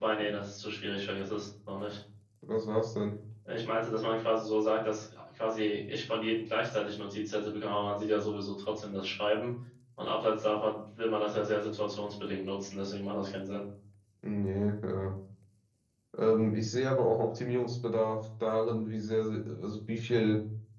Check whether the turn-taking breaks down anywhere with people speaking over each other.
No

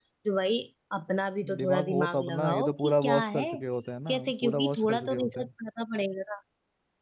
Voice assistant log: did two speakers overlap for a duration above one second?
Yes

